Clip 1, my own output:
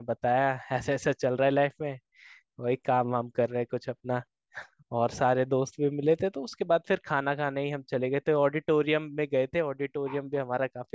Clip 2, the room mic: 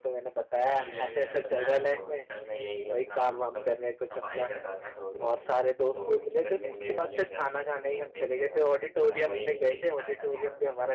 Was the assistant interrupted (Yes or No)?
Yes